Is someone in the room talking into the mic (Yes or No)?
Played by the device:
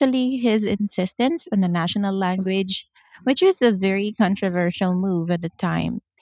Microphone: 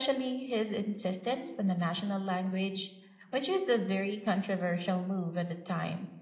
No